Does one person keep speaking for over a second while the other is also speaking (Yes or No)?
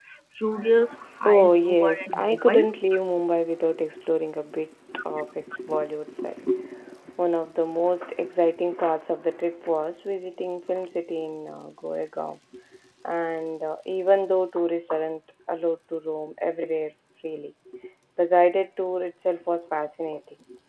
Yes